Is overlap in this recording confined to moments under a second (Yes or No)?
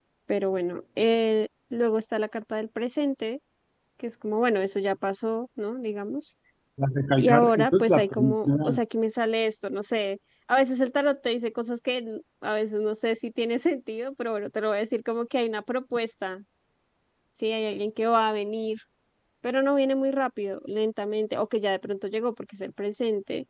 No